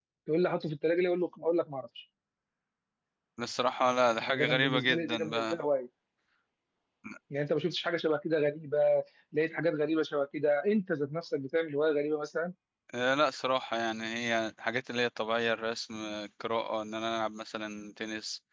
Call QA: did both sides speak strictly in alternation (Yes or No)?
No